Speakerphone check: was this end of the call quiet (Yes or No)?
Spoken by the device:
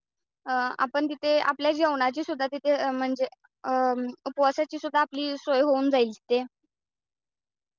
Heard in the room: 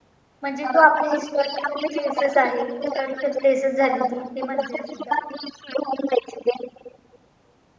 No